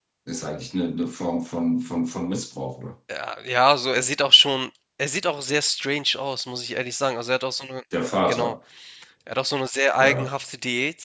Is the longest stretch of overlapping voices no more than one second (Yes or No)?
Yes